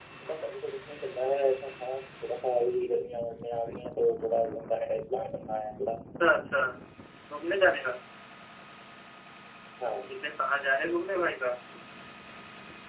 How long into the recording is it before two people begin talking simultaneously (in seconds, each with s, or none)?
none